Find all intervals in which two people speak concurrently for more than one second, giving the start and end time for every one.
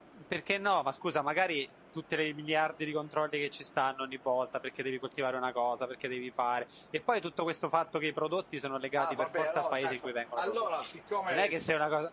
9.0-10.7

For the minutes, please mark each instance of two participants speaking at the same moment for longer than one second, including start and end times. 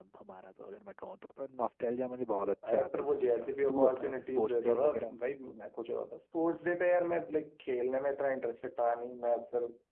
2.7-5.2

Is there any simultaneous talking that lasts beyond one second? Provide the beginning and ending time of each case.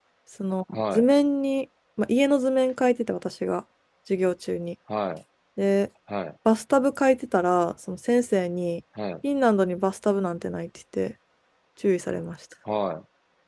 none

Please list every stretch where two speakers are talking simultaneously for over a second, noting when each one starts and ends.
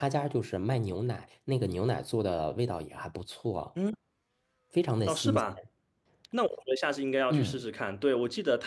none

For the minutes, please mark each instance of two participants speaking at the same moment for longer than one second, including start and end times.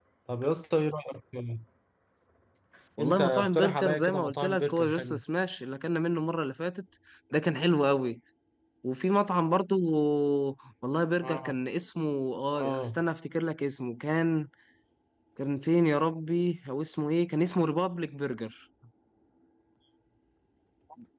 3.0-5.2

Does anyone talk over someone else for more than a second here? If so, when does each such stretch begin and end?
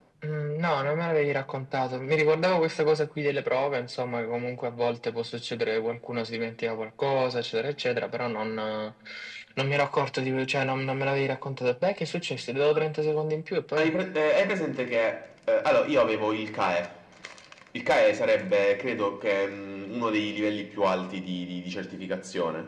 none

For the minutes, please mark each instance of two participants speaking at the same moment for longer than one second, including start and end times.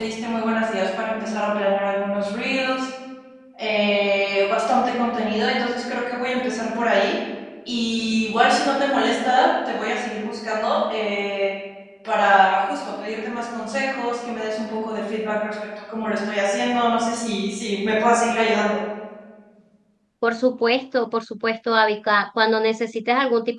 none

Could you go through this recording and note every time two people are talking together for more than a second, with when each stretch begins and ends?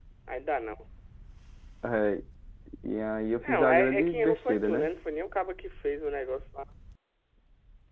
3.4-4.9

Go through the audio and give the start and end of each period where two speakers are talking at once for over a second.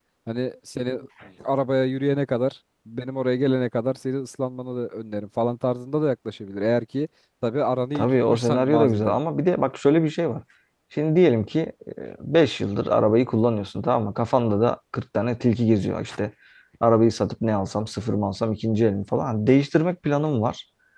8.0-9.2

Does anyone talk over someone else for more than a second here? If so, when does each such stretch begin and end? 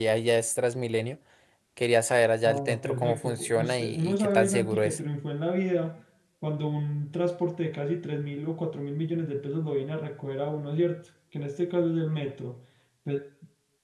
2.5-5.0

